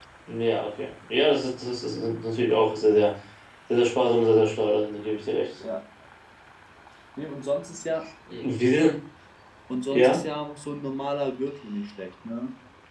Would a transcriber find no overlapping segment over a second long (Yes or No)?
Yes